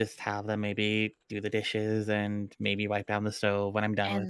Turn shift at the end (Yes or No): Yes